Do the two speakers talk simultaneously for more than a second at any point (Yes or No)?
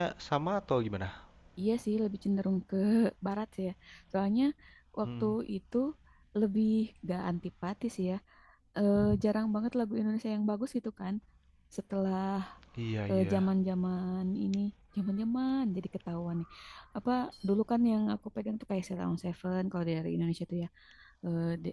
No